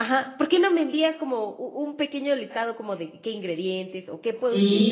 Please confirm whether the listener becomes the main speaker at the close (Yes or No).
Yes